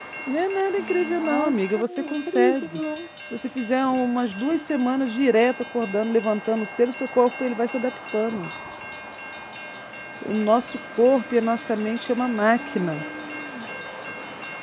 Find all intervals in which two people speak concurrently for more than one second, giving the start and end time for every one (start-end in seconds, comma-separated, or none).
0.8-2.8